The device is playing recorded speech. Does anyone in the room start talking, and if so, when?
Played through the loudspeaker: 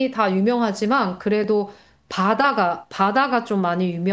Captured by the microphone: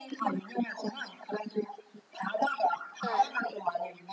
3.0 s

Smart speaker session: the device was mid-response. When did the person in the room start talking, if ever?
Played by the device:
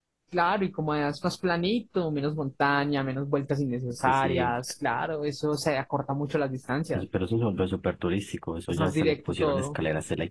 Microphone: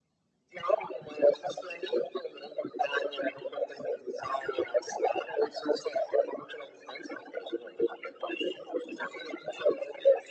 none

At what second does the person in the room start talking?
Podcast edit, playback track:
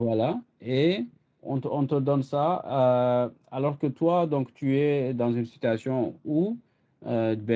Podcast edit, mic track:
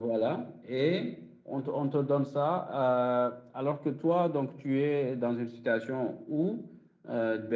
none

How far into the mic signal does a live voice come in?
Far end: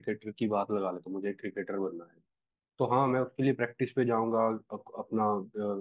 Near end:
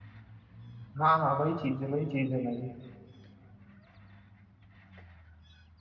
1.0 s

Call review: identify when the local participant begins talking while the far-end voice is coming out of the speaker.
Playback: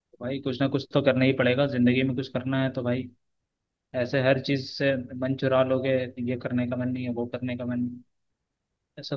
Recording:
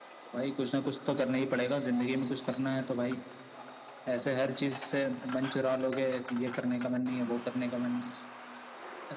none

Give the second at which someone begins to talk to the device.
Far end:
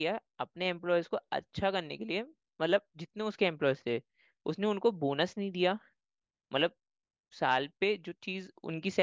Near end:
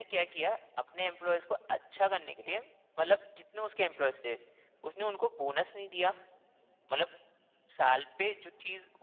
none

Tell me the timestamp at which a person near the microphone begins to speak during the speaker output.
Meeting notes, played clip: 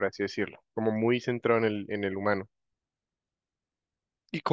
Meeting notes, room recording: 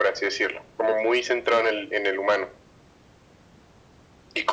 none

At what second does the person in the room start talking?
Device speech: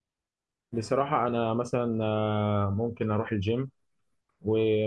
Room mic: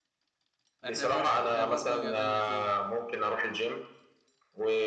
0.8 s

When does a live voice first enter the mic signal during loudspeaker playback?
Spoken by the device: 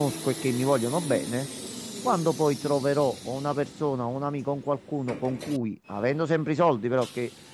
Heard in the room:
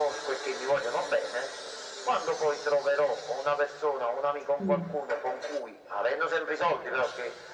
4.6 s

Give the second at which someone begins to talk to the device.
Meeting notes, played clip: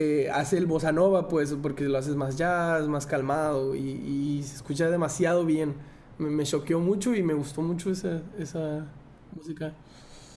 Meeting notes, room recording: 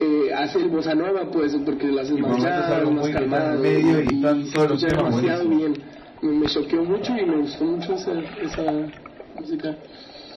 2.1 s

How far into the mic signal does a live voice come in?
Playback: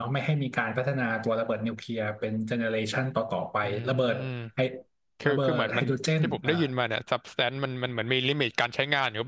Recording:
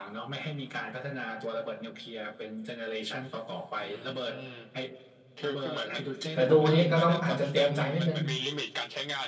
6.3 s

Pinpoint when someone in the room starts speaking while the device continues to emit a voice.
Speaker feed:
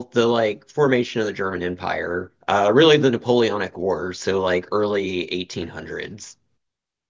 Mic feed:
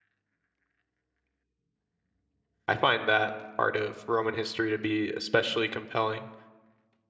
2.7 s

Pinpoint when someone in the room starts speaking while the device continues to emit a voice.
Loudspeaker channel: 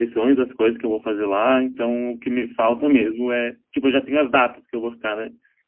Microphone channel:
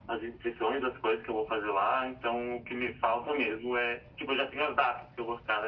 none

